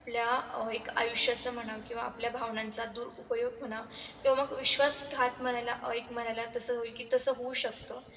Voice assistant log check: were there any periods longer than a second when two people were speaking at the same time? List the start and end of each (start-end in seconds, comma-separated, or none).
none